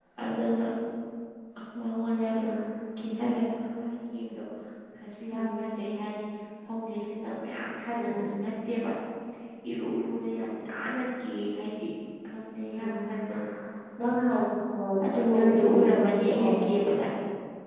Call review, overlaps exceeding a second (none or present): present